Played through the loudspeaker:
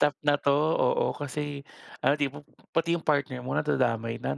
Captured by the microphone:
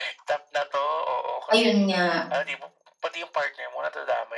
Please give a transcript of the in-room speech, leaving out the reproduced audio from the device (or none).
Ayon nga.